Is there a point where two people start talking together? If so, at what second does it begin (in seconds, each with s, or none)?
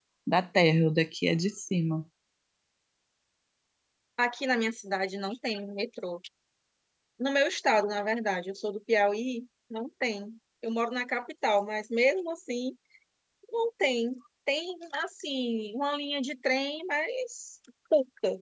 none